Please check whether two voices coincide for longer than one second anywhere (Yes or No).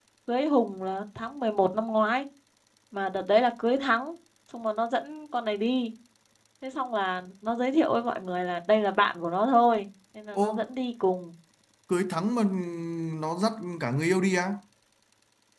No